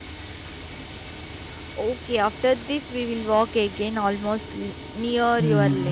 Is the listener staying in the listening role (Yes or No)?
No